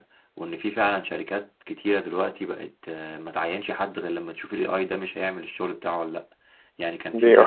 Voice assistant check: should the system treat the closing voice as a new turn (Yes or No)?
No